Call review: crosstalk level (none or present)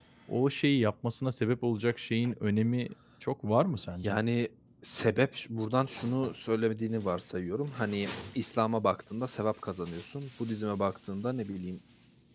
none